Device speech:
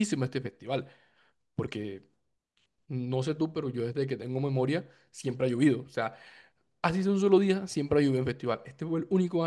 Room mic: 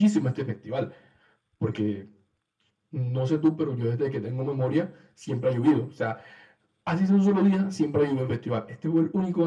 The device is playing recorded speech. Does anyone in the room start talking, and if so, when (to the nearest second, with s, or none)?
none